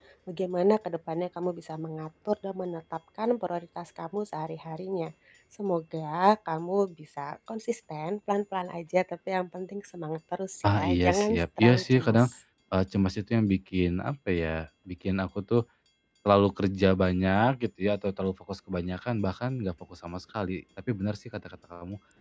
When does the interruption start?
11 s

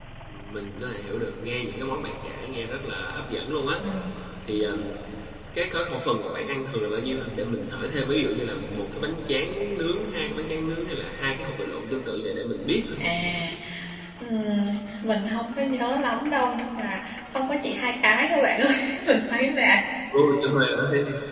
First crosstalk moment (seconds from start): none

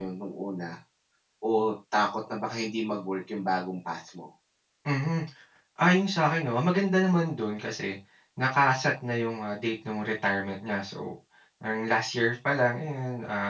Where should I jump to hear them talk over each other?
none

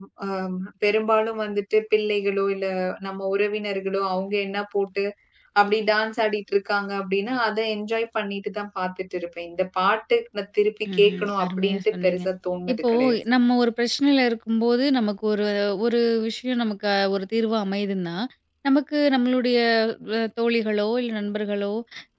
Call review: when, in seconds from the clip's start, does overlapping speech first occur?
11 s

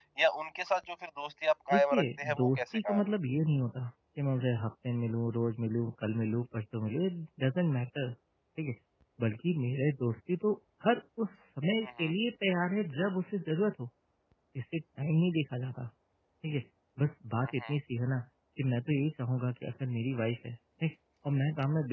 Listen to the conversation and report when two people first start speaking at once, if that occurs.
2 s

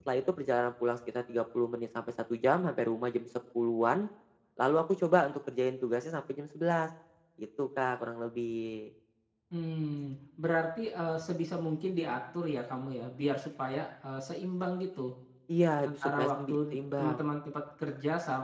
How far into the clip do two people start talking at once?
16 s

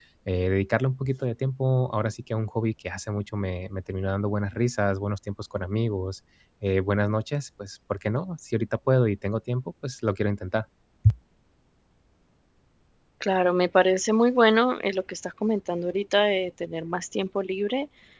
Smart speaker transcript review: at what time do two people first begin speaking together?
none

